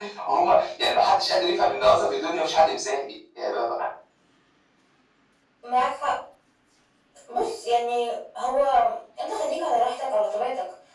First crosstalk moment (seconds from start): none

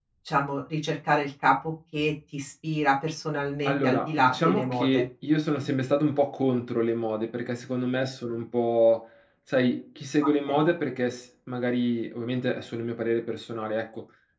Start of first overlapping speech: 3.6 s

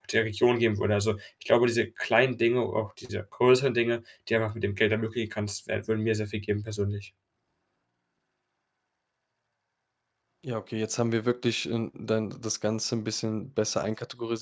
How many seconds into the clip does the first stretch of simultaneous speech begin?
none

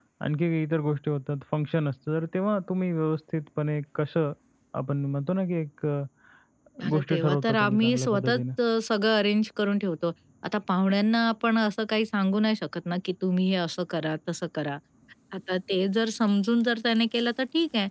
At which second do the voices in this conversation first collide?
6.9 s

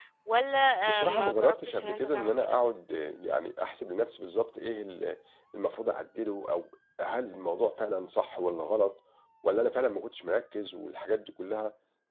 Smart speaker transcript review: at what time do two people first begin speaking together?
1.0 s

